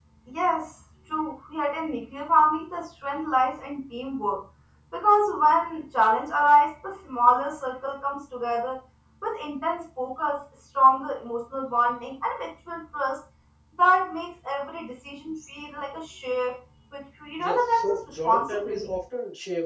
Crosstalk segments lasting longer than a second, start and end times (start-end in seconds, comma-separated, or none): 17.4-18.9